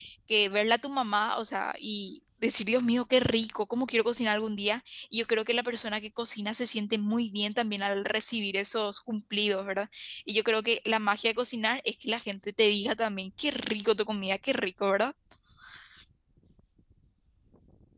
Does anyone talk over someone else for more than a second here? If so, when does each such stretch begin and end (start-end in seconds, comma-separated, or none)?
none